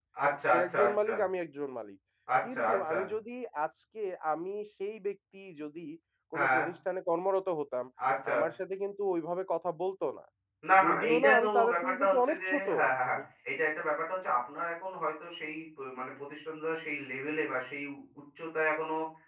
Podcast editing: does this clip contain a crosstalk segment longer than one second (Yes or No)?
Yes